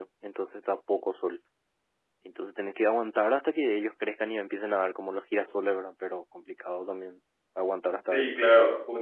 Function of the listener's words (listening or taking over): taking over